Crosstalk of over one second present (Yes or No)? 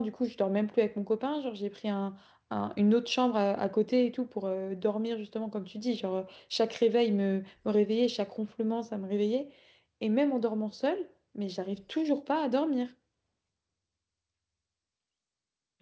No